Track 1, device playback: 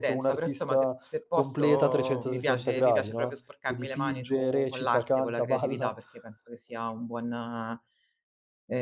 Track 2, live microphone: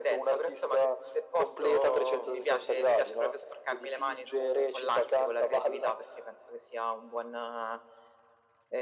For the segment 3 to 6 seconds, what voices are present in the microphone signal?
echo only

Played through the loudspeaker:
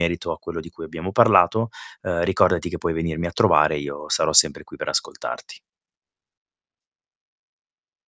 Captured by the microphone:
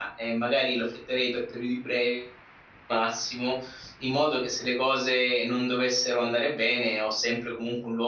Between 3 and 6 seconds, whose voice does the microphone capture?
user only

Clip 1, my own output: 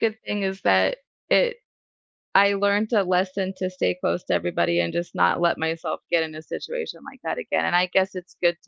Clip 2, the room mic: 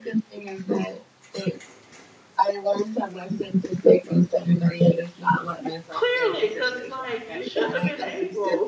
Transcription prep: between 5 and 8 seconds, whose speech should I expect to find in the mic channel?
both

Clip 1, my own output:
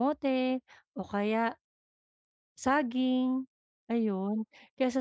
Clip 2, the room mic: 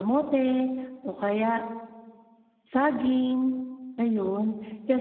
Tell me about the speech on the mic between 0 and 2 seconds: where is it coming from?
echo only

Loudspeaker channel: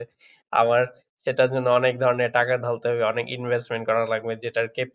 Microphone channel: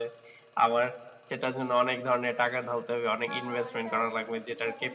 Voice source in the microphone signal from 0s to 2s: echo only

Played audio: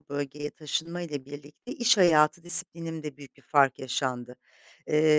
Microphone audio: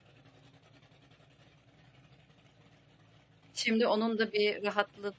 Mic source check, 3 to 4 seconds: user only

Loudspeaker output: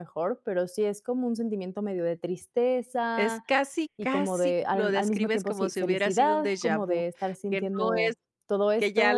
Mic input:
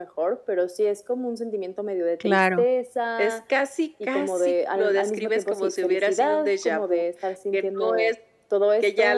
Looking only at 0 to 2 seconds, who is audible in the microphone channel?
echo only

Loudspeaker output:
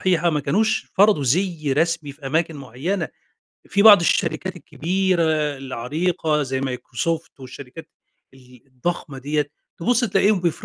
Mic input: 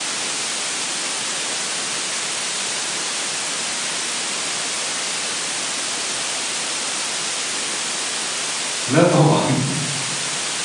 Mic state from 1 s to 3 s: neither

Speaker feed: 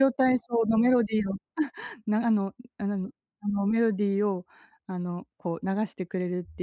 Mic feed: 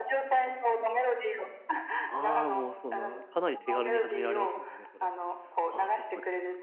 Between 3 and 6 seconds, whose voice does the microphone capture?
both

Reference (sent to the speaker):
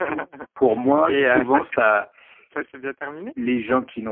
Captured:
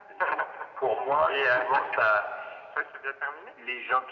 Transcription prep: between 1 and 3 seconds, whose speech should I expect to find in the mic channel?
echo only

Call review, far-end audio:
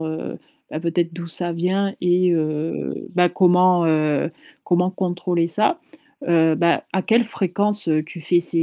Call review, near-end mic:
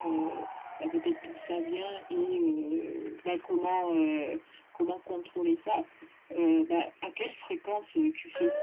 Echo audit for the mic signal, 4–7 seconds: echo only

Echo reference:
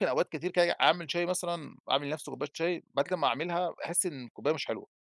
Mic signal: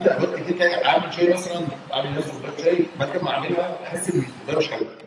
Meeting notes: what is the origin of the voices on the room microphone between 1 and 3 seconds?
echo only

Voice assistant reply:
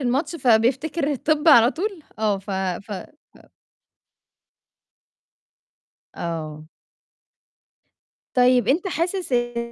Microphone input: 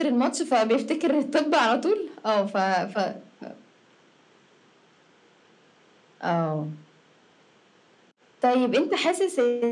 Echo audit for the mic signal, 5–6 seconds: neither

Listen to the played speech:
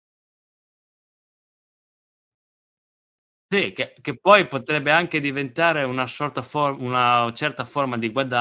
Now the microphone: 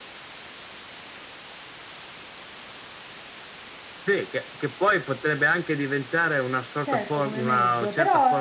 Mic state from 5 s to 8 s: both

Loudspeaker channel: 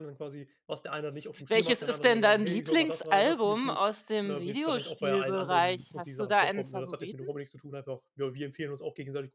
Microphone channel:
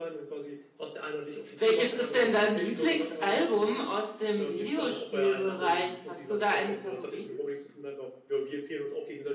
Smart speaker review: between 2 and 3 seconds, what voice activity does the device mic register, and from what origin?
echo only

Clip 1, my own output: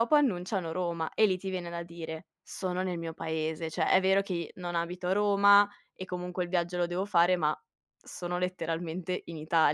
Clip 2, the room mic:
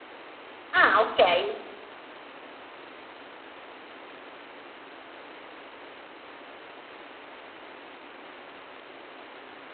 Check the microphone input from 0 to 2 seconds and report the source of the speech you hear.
user only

